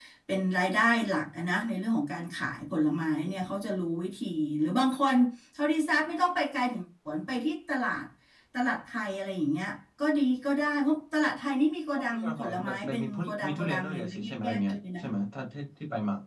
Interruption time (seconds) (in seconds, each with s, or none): 11.9 s